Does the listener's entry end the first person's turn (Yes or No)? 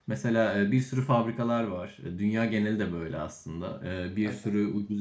No